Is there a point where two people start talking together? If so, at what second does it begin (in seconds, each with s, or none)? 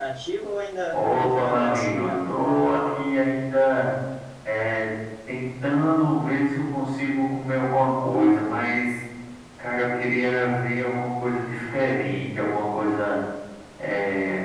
0.9 s